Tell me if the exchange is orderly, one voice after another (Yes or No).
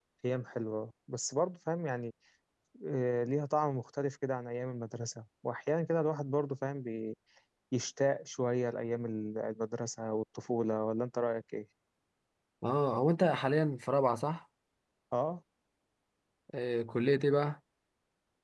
Yes